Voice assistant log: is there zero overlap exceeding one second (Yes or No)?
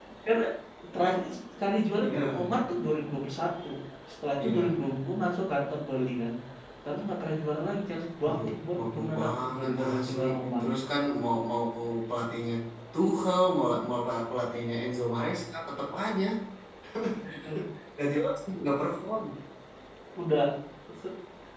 No